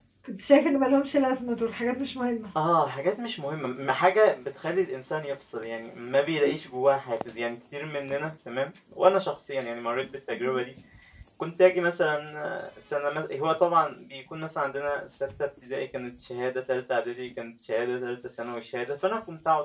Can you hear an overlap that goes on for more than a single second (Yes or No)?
No